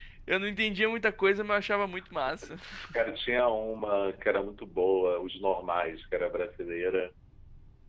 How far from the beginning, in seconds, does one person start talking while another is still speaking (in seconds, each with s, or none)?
none